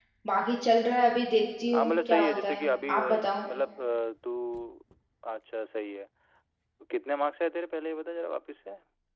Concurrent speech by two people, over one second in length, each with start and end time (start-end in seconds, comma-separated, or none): 1.7-3.2